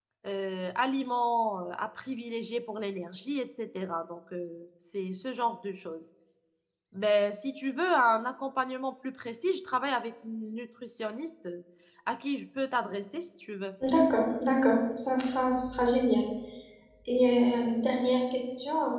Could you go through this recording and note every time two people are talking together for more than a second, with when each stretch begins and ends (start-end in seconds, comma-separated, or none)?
none